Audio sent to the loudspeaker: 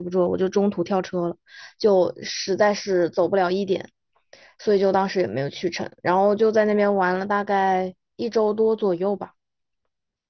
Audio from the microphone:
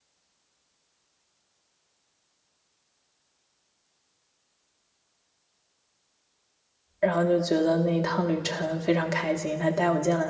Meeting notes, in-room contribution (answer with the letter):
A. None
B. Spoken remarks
B